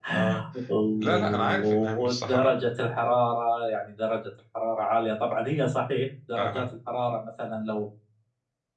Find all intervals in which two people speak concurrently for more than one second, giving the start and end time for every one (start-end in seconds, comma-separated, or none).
1.0-2.5